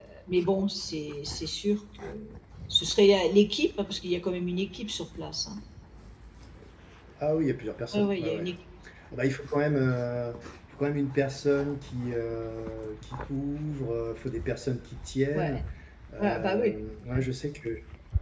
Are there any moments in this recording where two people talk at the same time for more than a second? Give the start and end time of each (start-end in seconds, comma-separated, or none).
none